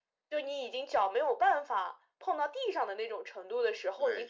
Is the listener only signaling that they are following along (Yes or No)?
No